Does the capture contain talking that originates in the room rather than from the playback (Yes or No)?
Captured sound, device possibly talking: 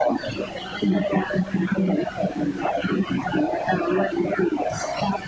No